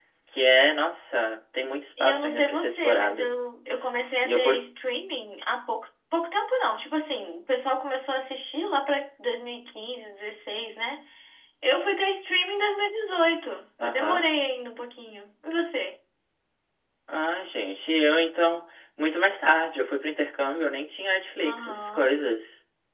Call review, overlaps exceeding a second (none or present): present